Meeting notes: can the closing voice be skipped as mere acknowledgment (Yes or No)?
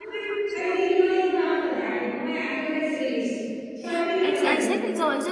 No